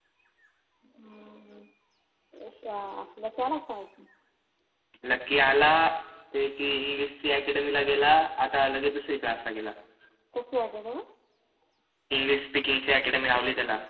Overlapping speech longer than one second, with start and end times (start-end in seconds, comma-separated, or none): none